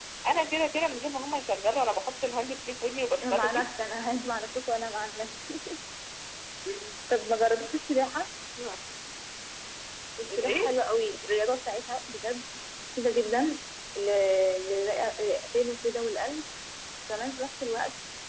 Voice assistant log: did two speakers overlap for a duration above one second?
No

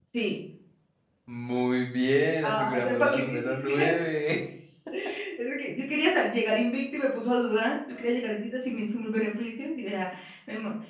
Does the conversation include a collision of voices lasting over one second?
Yes, from 2.4 s

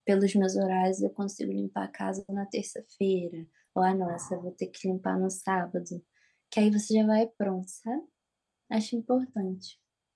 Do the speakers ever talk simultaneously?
No

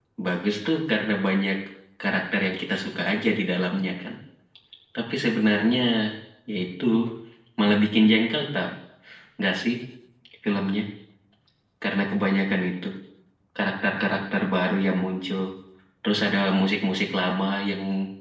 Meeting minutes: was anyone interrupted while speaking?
No

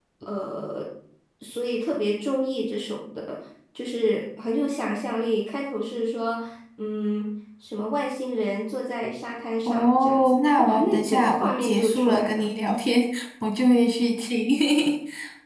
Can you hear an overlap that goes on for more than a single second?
Yes, from 9.6 s

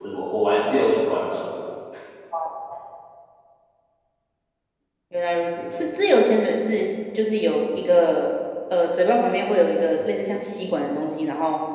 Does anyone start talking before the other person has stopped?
No

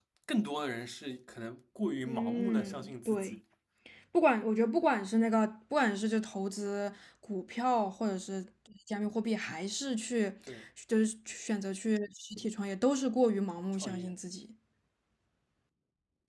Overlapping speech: Yes, from 2.0 s

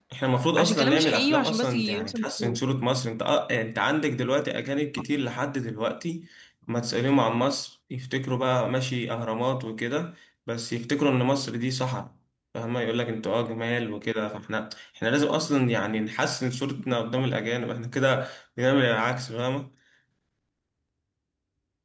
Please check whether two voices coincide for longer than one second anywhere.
Yes, from 0.6 s

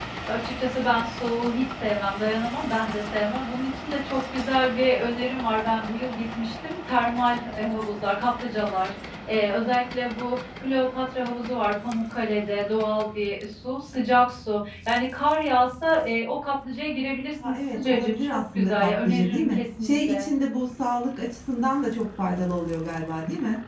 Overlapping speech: Yes, from 17.4 s

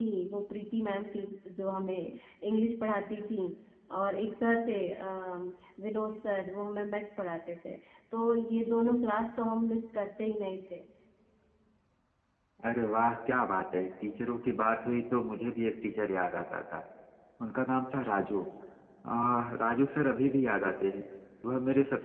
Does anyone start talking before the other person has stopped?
No

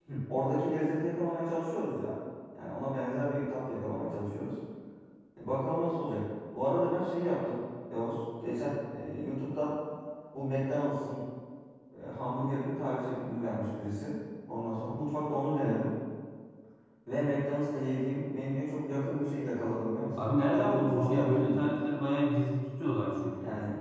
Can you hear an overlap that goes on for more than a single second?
Yes, from 20.1 s

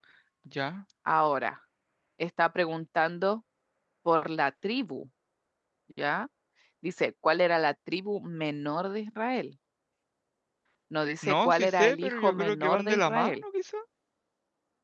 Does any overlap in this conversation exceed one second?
Yes, from 11.2 s

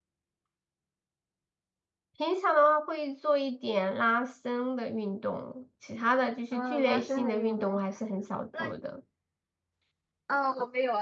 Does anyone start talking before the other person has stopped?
Yes, from 6.5 s

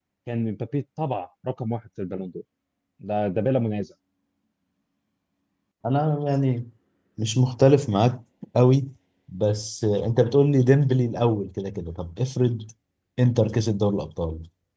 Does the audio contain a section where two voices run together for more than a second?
No

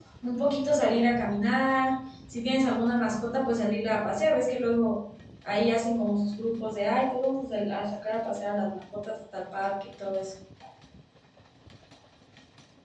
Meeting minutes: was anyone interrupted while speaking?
No

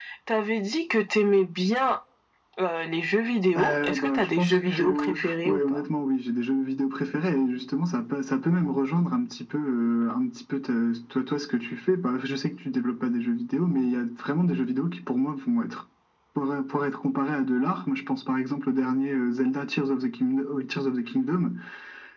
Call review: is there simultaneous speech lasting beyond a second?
Yes, from 3.5 s

